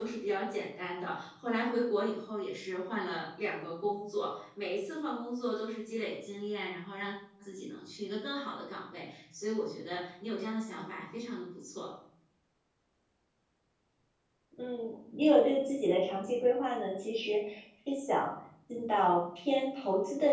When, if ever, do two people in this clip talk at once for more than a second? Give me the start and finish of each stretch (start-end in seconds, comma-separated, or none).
none